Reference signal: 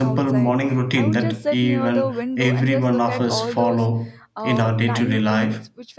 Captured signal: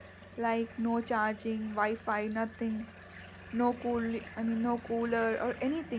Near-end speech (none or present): present